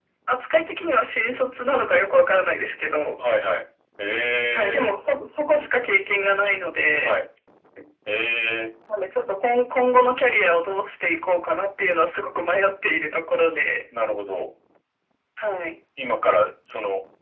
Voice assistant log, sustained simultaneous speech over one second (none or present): none